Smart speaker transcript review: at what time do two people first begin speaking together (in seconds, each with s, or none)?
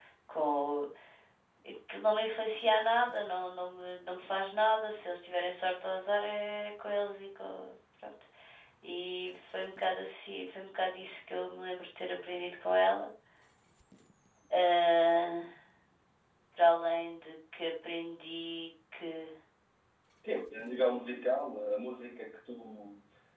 none